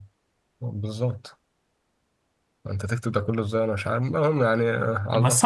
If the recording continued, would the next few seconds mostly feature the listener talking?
Yes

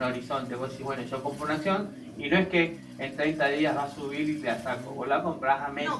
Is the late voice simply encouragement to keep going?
No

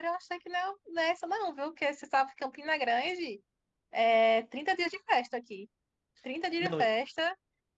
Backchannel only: Yes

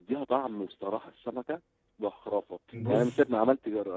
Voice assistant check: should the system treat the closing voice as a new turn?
No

